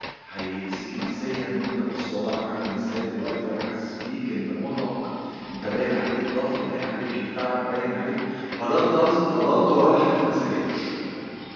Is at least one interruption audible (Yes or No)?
No